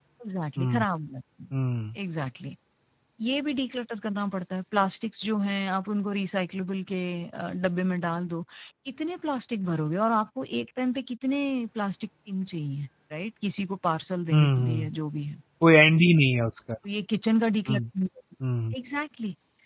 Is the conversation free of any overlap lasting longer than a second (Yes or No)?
Yes